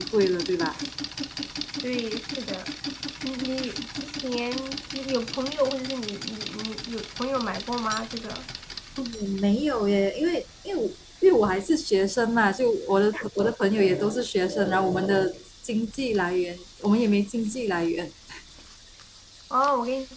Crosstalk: none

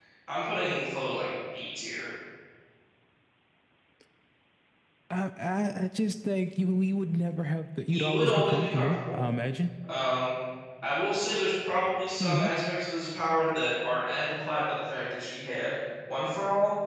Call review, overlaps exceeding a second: present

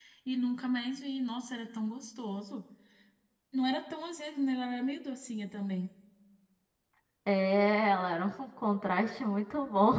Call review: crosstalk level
none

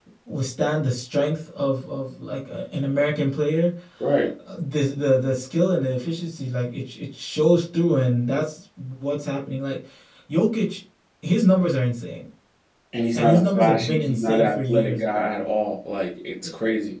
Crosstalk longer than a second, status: present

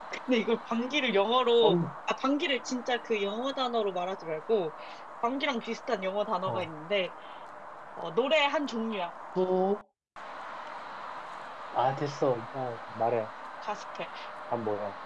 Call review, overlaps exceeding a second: none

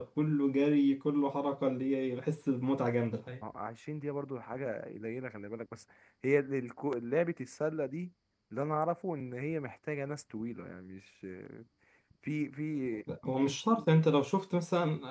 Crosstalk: none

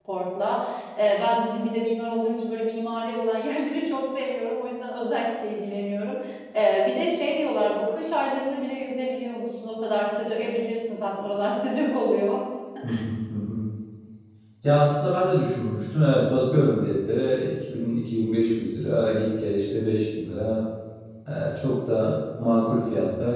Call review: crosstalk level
none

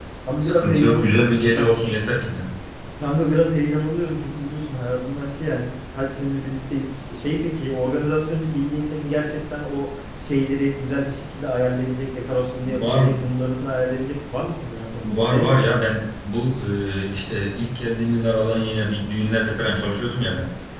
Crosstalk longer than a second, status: present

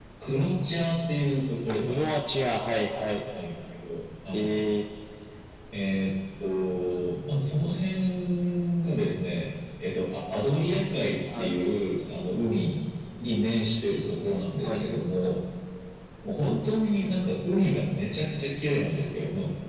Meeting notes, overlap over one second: none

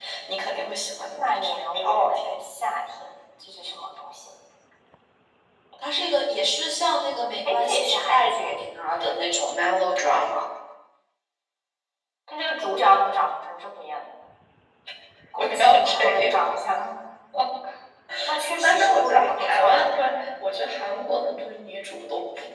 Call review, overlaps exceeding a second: present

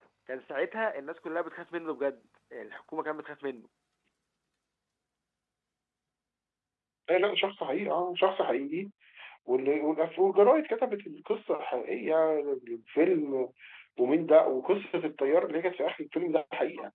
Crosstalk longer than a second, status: none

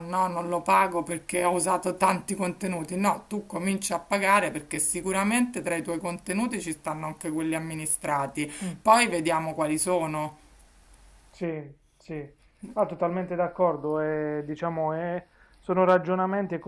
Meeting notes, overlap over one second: none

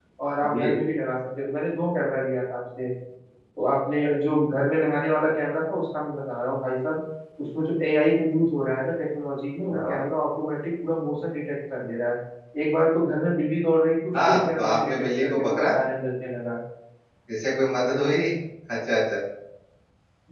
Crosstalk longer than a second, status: present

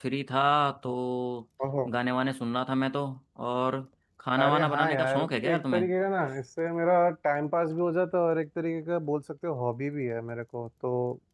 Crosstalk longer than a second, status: present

